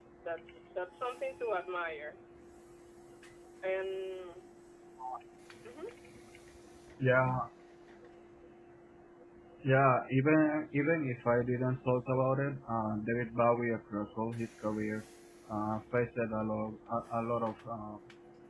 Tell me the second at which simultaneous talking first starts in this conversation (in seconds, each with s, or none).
none